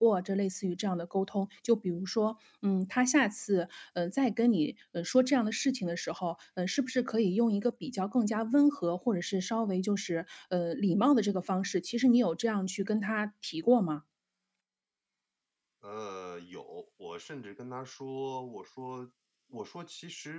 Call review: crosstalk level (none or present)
none